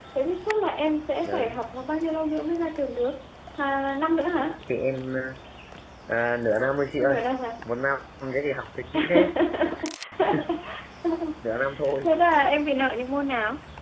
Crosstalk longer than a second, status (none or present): none